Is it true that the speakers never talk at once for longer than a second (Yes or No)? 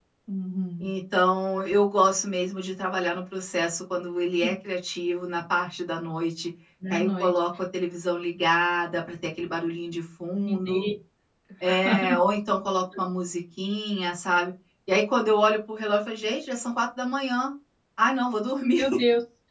Yes